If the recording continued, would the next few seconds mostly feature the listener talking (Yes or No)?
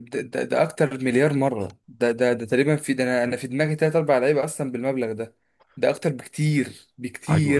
Yes